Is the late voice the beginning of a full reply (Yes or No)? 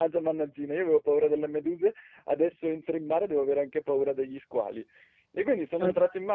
No